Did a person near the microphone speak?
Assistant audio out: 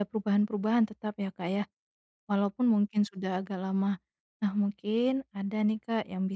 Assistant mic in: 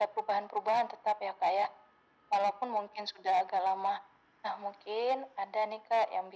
No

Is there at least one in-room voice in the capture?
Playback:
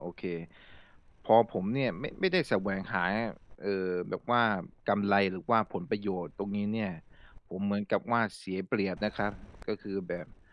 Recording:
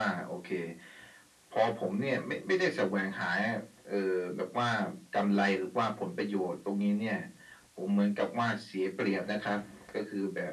No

